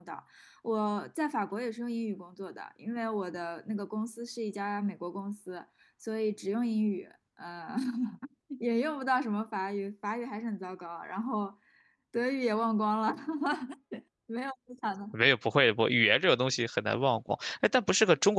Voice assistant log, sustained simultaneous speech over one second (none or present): none